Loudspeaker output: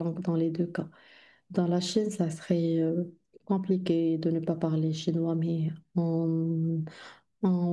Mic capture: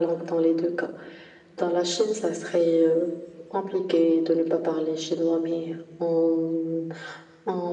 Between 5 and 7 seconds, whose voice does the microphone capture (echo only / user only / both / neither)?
echo only